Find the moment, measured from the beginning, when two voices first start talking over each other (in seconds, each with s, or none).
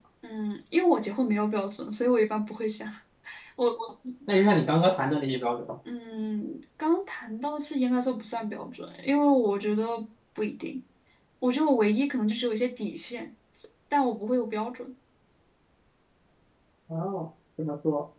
none